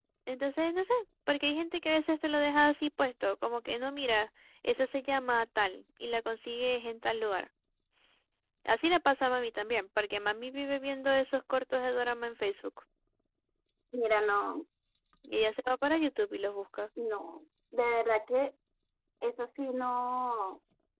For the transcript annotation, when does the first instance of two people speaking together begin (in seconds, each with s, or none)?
none